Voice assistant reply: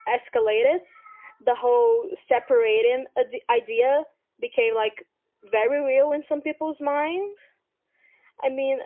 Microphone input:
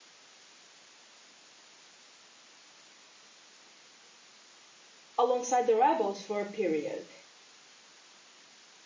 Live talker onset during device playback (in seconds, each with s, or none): 5.2 s